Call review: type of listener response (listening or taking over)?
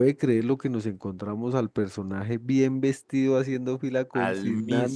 listening